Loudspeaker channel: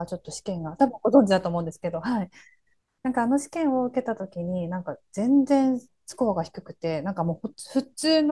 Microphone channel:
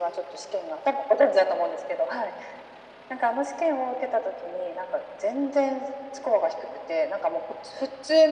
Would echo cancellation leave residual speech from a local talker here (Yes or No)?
No